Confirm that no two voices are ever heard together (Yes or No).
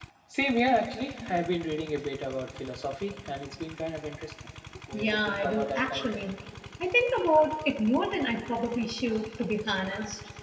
No